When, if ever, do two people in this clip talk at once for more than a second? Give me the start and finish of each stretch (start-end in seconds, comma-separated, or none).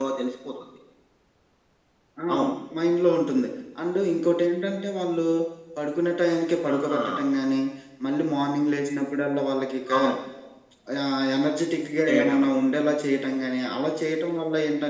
none